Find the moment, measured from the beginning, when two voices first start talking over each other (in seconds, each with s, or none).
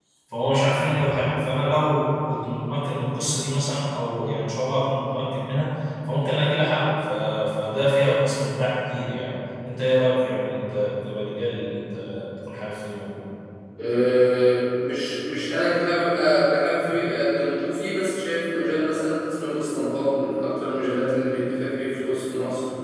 none